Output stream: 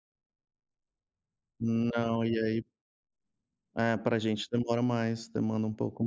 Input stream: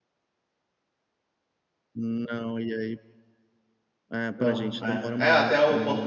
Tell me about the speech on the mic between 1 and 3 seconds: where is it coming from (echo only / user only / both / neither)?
echo only